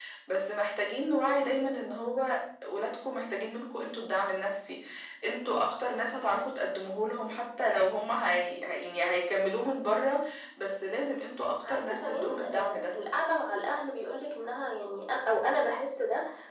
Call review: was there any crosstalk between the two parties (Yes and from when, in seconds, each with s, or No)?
Yes, from 11.6 s